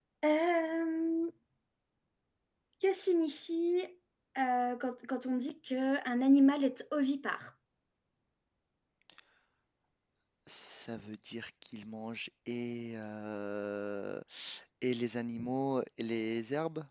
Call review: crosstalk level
none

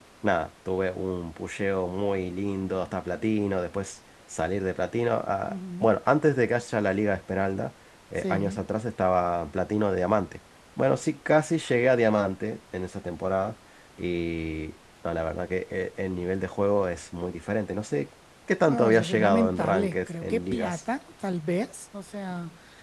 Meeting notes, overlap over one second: present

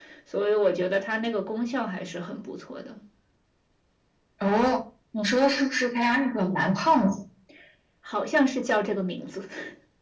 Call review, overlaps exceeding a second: none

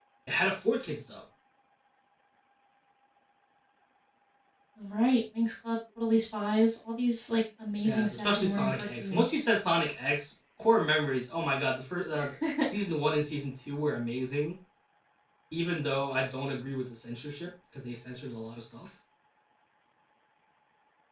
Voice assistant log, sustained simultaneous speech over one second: present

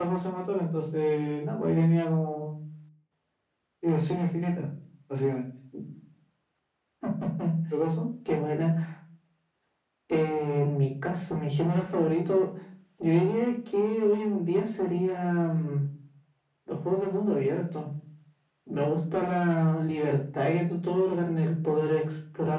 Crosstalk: none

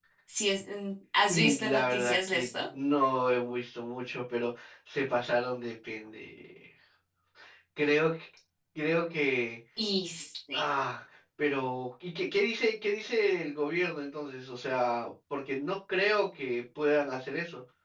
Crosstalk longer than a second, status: present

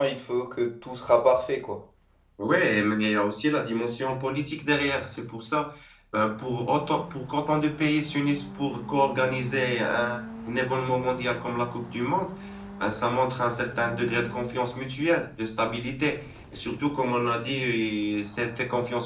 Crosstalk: none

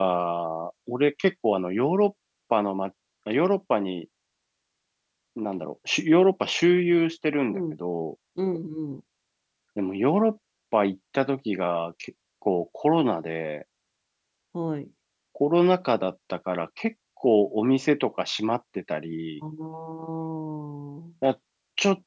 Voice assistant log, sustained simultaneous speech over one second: none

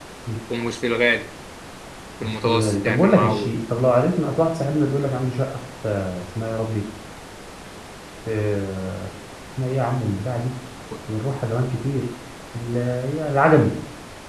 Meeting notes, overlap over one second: present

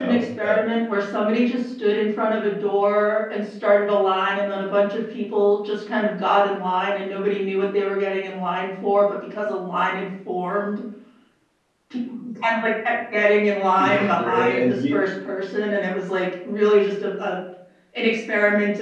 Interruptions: present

